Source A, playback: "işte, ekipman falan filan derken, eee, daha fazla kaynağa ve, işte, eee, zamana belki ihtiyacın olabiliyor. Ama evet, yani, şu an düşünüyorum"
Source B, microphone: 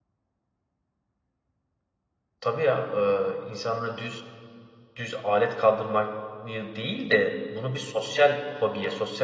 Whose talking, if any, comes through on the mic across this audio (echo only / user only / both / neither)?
user only